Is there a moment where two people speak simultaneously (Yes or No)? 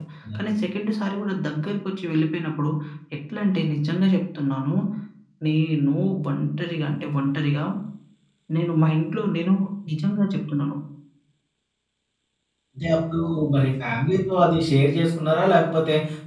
No